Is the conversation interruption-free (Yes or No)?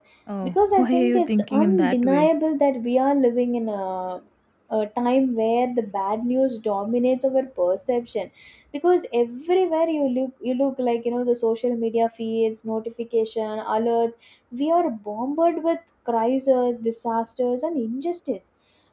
No